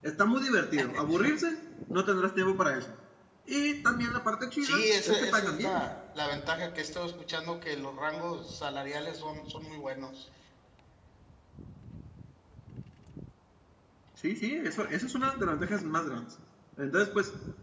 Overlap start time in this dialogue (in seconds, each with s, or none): 4.6 s